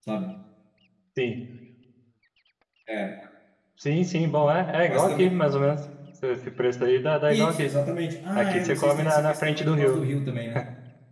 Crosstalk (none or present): present